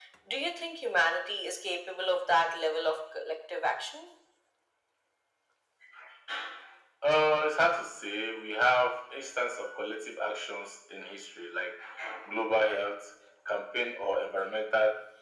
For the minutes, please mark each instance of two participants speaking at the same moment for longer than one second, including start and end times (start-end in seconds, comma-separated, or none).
none